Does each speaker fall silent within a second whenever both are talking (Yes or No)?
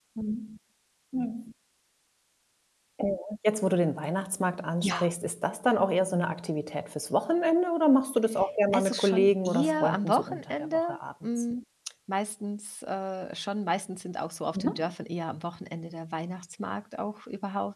No